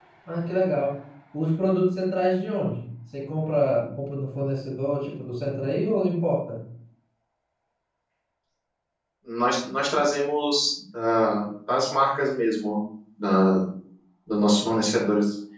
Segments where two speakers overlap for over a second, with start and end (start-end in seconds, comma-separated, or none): none